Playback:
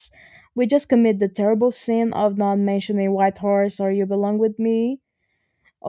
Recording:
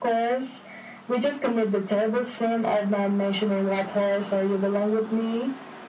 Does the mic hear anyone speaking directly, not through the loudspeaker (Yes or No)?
No